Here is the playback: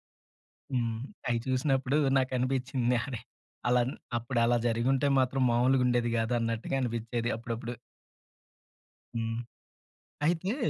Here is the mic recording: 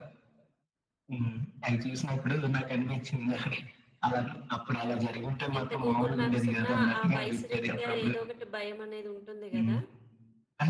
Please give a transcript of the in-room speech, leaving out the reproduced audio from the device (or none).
ఎంత గూగుల్ మ్యాప్సున్న ఆ వయసు రీత్యా ఏదో ఒకటి భయం అనేది ఉంటుంది గదా!